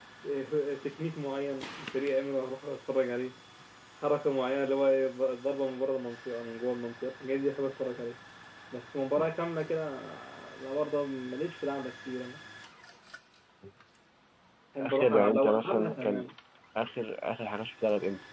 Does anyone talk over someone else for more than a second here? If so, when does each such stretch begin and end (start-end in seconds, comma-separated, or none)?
14.8-16.2